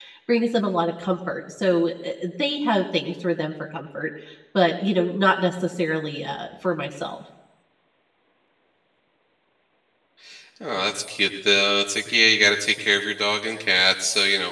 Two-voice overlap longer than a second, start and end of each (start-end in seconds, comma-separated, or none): none